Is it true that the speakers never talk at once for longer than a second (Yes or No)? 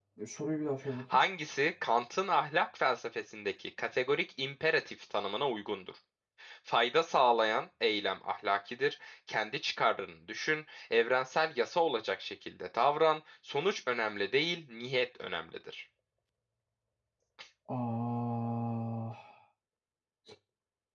Yes